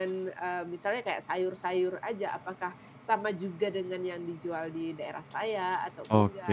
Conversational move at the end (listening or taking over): taking over